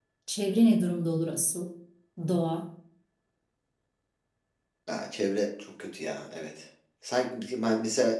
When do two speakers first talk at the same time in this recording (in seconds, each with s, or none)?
none